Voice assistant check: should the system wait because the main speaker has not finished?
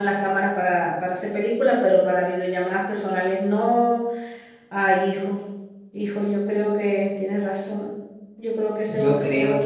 No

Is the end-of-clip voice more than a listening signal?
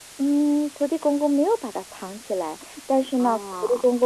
No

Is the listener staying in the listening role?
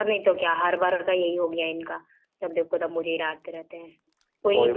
Yes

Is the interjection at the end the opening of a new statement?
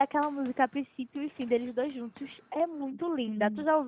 Yes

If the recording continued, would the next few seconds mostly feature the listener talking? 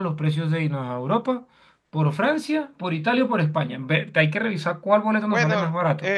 Yes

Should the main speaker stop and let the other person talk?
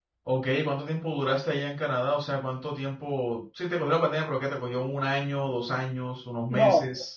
Yes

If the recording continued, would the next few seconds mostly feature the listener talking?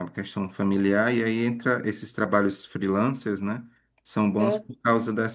No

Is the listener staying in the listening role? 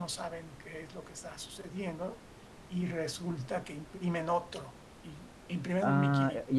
No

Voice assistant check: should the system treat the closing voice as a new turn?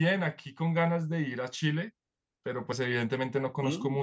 No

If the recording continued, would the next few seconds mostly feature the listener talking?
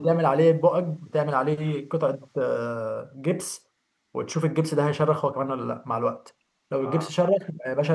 No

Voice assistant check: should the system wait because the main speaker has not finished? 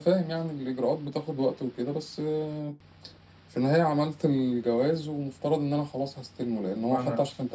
Yes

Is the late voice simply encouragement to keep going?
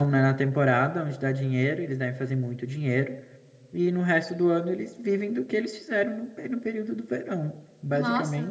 No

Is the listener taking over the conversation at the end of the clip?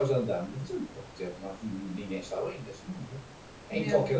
No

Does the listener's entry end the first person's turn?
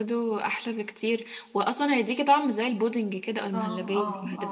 Yes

